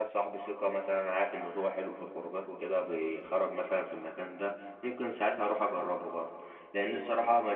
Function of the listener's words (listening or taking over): listening